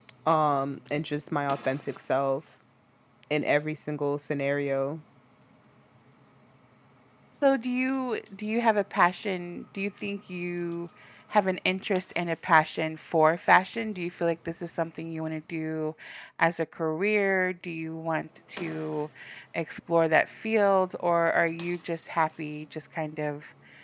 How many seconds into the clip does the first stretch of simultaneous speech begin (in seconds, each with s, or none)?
none